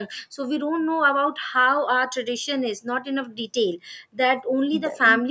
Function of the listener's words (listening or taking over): listening